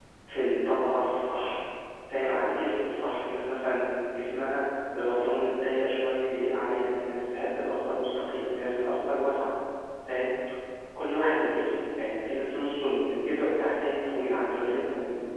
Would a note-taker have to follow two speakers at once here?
No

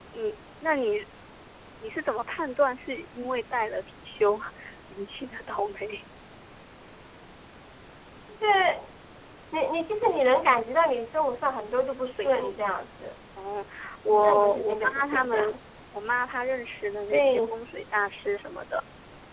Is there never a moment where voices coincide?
No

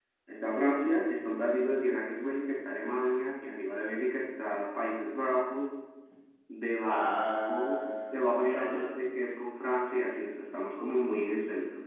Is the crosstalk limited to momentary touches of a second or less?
No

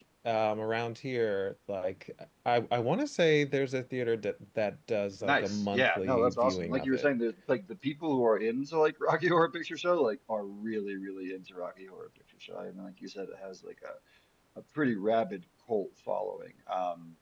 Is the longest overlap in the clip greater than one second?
Yes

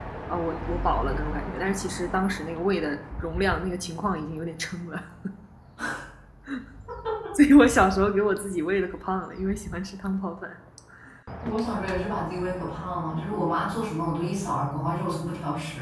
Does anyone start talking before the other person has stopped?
No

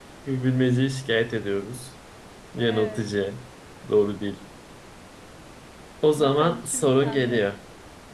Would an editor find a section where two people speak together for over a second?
Yes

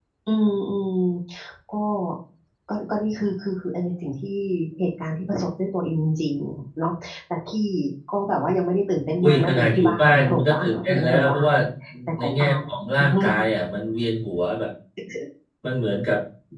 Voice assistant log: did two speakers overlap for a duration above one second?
Yes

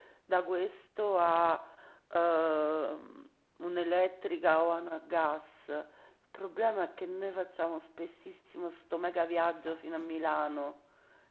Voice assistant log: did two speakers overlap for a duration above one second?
No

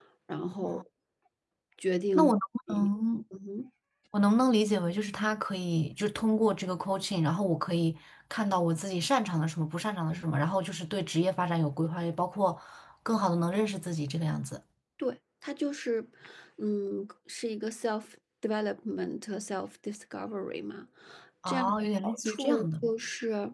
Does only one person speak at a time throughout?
No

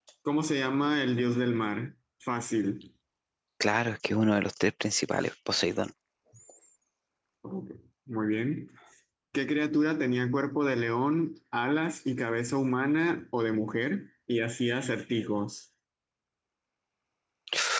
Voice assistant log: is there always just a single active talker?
Yes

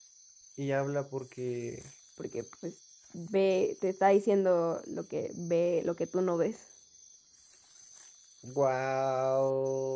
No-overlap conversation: Yes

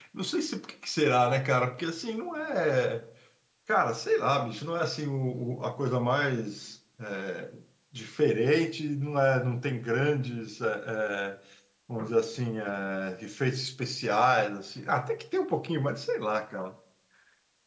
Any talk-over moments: No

